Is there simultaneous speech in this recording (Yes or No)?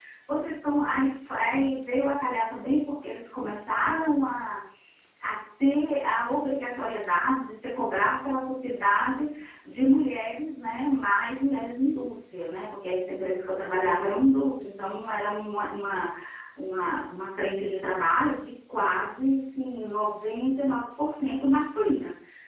No